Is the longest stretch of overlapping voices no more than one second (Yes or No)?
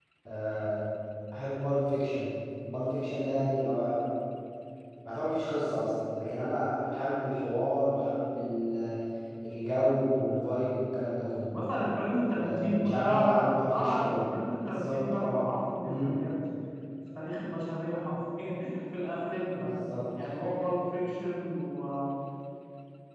No